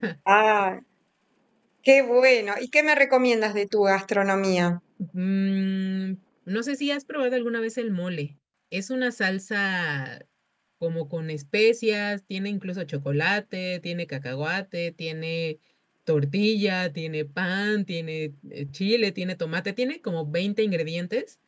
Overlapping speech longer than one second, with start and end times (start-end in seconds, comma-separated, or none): none